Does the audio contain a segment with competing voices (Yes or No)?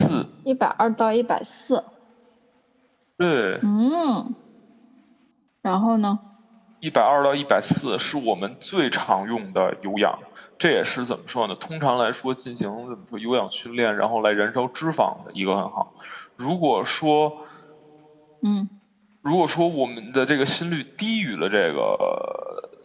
No